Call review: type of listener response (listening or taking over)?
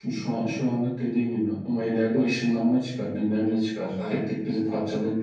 listening